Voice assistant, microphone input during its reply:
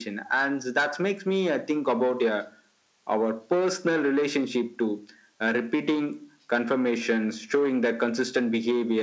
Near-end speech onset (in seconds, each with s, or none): none